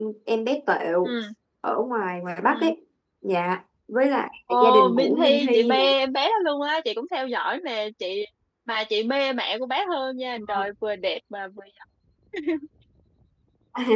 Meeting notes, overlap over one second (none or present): present